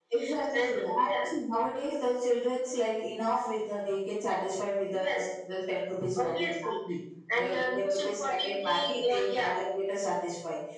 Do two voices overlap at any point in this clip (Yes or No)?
Yes